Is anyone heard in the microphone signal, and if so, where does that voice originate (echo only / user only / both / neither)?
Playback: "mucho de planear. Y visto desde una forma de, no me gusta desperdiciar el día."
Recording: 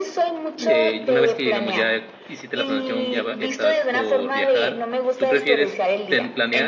both